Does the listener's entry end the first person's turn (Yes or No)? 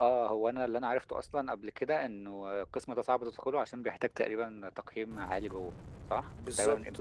Yes